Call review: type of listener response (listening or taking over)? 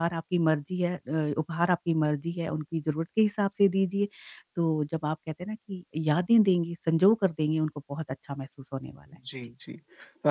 taking over